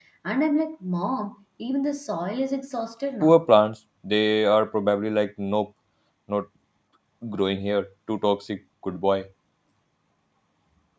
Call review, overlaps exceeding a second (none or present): none